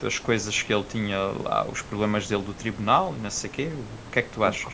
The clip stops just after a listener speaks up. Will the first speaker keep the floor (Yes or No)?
No